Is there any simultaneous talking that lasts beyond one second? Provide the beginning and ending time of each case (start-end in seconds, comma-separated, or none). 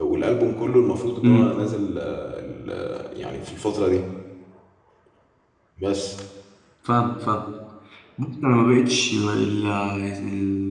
none